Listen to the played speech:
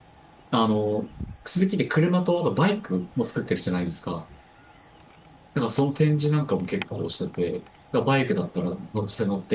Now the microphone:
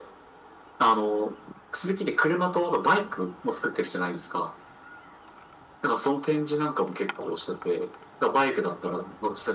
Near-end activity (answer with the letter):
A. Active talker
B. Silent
B